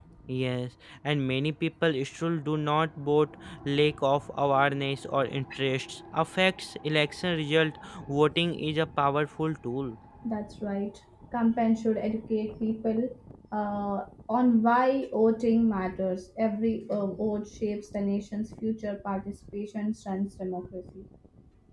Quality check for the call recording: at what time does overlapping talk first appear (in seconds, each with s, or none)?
none